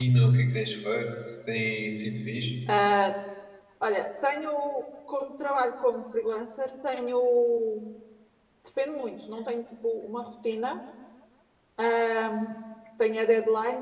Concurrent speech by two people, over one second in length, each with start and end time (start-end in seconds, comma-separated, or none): none